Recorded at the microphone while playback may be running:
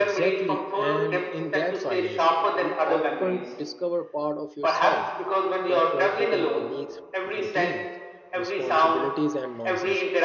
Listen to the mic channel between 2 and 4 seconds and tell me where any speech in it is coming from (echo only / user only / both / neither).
both